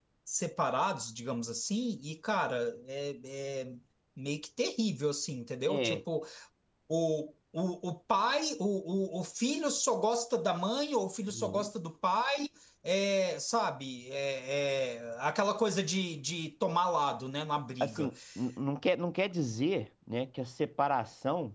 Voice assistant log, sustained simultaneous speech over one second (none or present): none